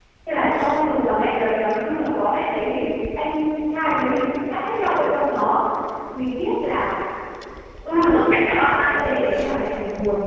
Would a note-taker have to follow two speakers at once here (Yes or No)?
Yes